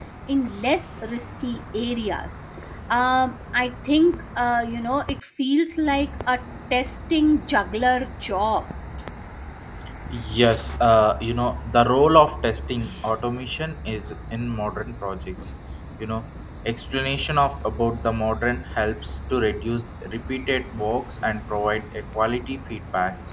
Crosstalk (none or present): none